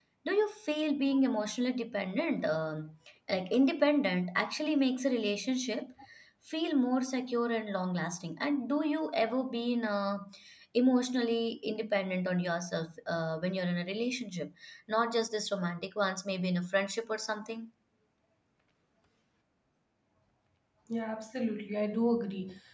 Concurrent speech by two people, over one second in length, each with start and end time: none

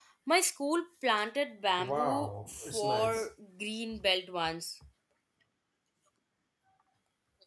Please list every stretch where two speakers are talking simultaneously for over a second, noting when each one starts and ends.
1.8-3.3

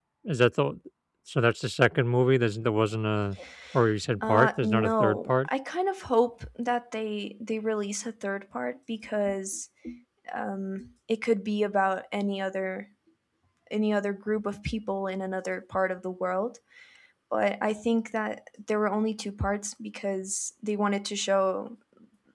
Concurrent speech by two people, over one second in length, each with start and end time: 4.2-5.5

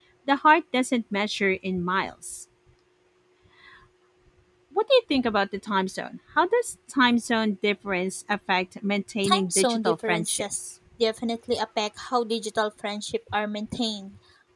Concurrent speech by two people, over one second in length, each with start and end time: 9.3-10.6

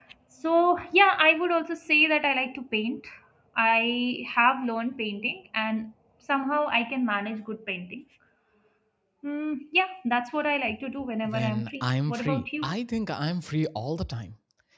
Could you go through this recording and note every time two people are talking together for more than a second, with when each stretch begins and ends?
11.3-12.7

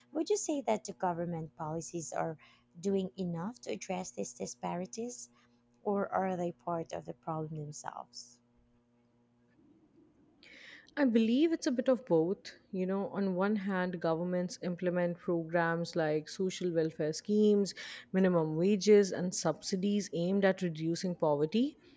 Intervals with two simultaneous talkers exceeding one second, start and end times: none

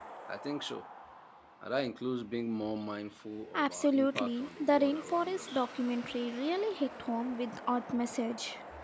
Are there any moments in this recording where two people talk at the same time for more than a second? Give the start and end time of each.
3.5-5.7

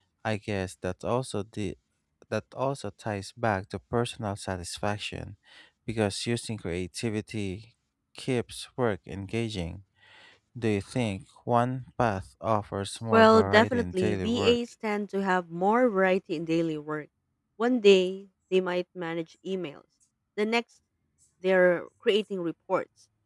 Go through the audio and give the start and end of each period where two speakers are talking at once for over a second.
13.1-14.6

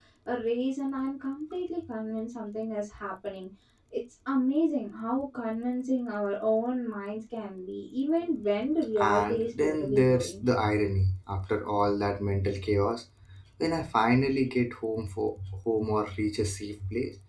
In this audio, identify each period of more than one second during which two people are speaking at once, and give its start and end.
9.0-10.4

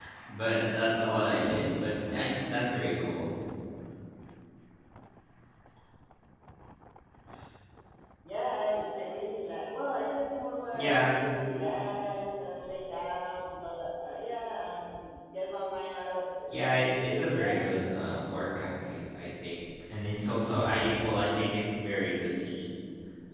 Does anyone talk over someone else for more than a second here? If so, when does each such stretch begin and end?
16.4-18.2

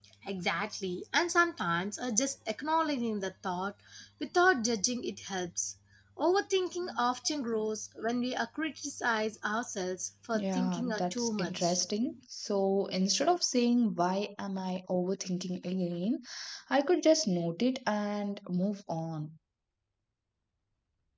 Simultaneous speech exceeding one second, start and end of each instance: 10.3-11.8

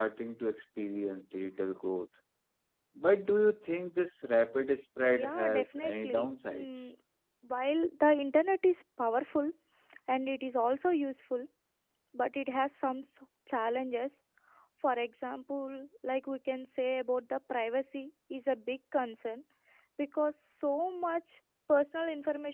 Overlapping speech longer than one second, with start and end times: 5.1-6.9

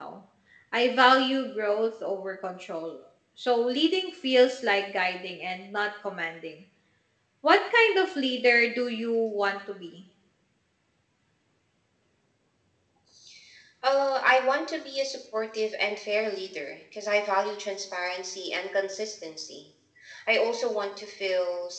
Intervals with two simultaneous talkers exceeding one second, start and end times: none

